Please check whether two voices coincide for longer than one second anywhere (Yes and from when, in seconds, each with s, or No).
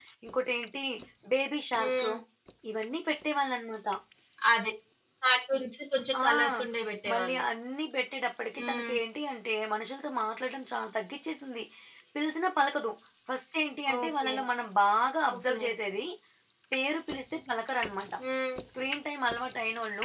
No